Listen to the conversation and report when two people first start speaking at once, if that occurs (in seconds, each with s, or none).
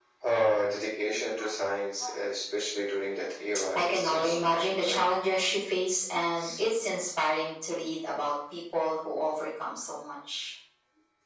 3.8 s